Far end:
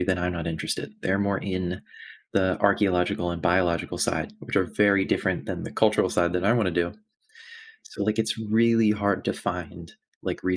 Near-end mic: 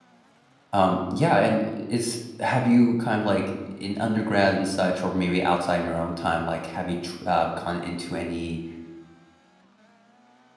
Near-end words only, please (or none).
Um, yeah, and is have you kind of like in undergrad and such, or maybe outside in your own time, like have you tr- uh, gone into any